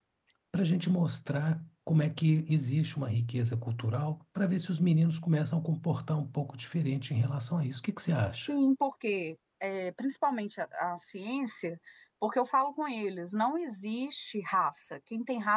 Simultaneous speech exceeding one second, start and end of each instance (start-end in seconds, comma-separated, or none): none